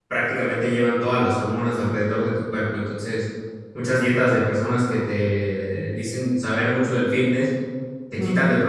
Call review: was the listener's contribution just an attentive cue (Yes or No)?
Yes